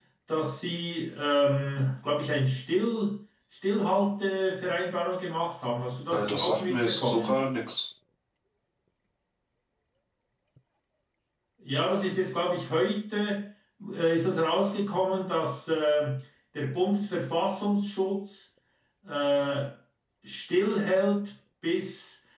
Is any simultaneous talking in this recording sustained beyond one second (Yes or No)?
Yes